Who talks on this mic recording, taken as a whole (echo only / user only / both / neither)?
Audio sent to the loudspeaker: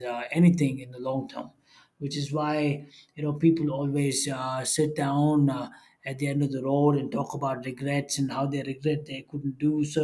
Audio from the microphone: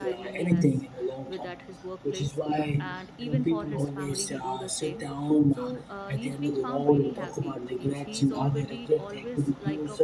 both